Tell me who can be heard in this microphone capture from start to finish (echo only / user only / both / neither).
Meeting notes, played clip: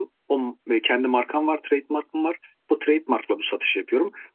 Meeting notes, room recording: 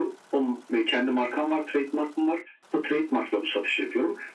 echo only